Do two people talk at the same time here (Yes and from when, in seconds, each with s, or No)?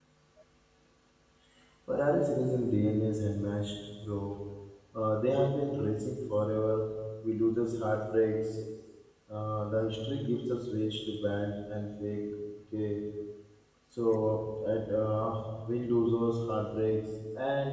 No